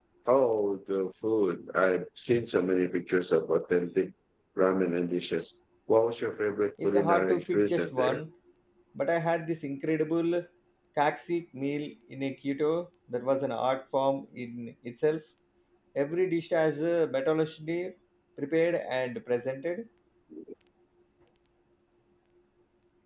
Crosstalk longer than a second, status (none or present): present